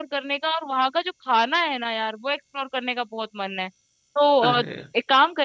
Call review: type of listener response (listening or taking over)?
listening